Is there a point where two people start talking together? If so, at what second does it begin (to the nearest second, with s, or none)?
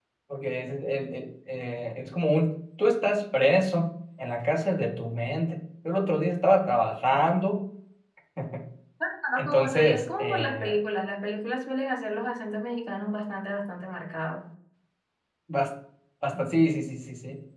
9 s